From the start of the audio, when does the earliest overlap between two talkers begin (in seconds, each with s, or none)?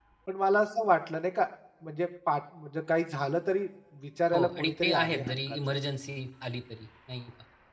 4.3 s